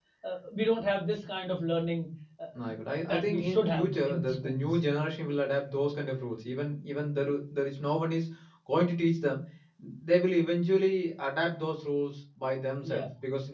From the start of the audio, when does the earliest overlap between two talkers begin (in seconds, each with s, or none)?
3.0 s